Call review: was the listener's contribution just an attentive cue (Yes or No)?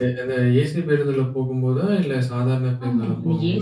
No